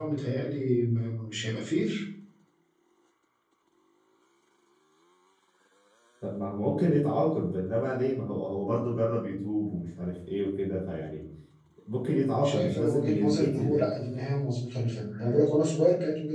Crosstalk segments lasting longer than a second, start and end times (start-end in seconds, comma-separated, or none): 12.4-13.9